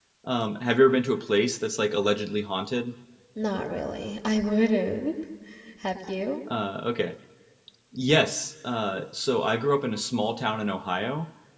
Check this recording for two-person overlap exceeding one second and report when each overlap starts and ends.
none

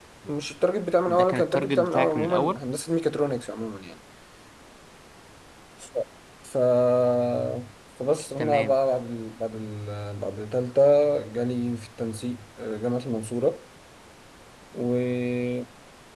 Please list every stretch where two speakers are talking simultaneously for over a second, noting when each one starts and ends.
1.0-2.6

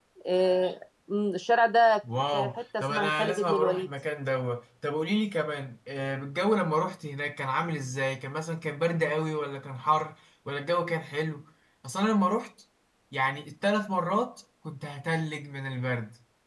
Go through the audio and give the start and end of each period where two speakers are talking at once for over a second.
2.3-3.9

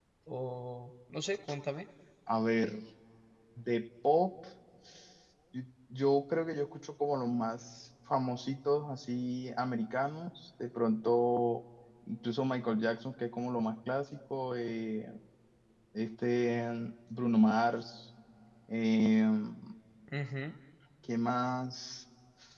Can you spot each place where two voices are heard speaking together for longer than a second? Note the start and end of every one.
none

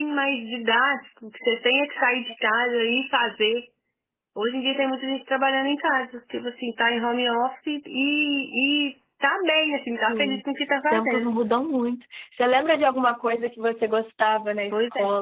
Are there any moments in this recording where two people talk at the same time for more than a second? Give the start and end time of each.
none

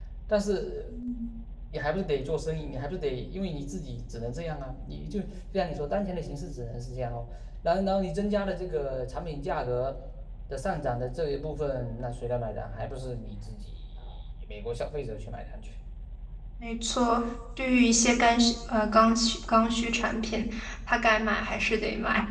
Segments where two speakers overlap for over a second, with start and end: none

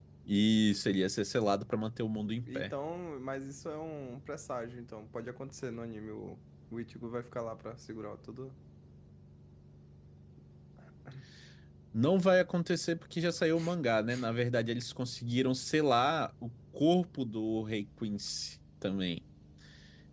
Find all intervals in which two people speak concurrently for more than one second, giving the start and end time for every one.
none

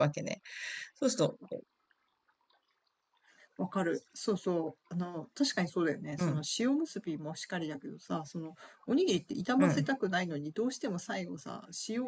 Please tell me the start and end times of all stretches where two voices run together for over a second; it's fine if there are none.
none

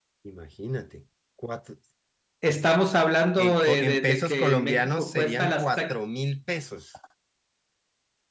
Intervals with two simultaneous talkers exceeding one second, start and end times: 3.4-5.7

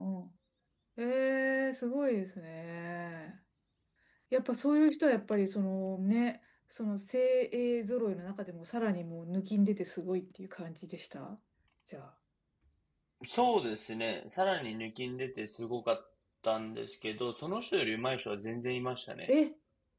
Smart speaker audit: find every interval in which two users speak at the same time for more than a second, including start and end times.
none

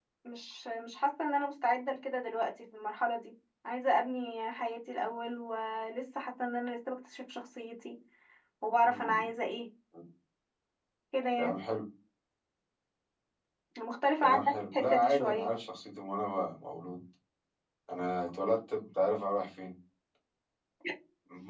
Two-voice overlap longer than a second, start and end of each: 14.2-15.5

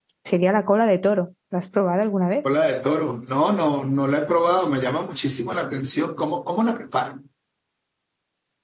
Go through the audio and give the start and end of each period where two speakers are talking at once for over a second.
none

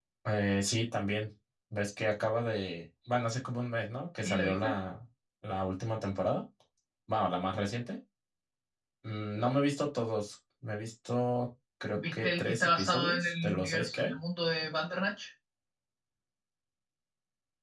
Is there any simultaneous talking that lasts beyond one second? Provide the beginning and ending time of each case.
11.9-14.2

